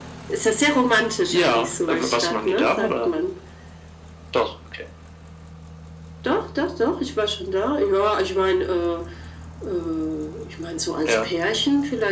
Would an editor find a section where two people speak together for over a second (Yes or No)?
Yes